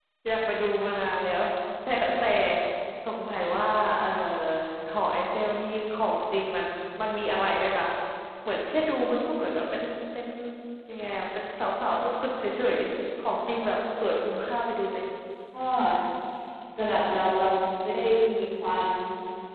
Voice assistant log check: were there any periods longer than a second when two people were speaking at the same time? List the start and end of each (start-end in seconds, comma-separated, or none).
none